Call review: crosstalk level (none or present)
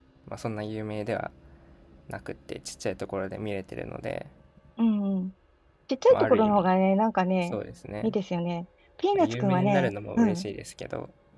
present